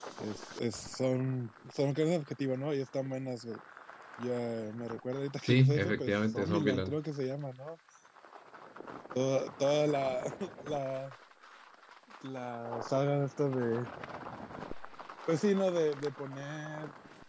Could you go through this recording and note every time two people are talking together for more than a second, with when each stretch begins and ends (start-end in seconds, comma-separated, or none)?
5.5-7.0